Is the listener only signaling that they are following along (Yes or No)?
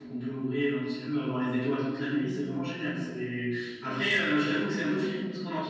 Yes